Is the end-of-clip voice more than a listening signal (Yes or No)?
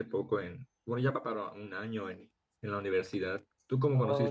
Yes